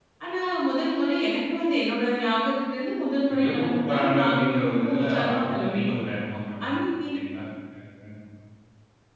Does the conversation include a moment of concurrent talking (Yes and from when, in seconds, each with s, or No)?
Yes, from 3.3 s